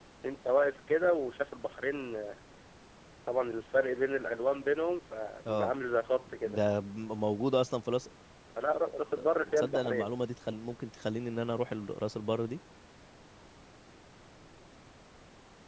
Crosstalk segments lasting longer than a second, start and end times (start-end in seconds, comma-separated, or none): none